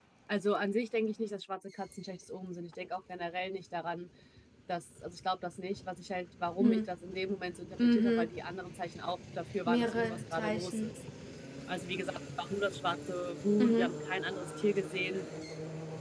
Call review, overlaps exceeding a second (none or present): present